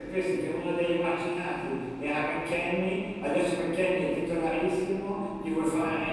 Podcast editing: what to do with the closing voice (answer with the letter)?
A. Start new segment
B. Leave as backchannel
B